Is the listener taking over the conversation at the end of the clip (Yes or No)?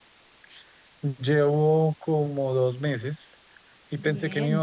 No